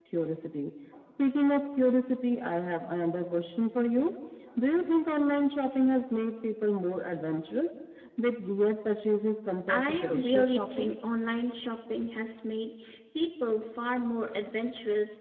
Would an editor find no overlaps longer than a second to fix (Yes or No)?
No